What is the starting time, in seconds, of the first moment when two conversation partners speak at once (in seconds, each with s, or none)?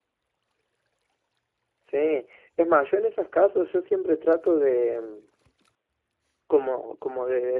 none